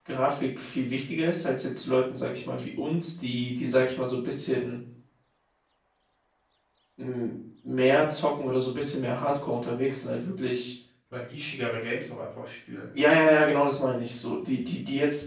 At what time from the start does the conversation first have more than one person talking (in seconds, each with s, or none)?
none